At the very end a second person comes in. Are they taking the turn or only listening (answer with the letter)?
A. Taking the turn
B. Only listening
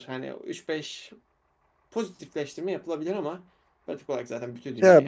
A